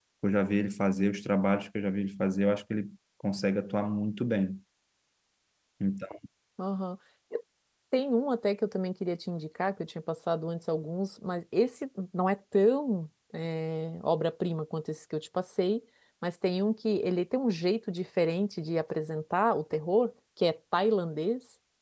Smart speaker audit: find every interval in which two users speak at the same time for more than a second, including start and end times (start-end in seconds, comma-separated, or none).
none